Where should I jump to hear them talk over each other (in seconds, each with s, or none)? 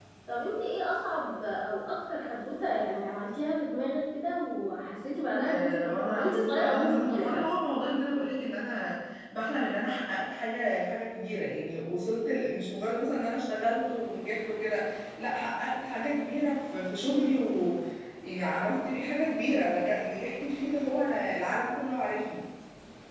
5.4 s